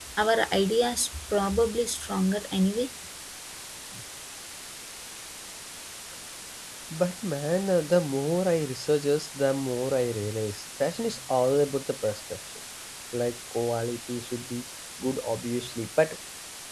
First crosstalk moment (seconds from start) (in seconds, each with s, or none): none